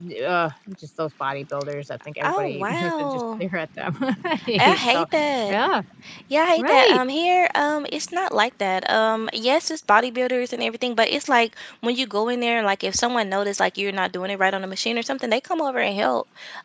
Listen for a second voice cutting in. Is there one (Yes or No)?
Yes